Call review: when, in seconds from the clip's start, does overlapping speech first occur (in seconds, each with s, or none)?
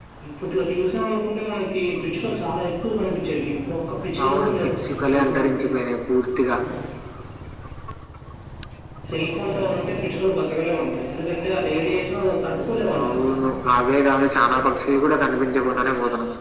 4.2 s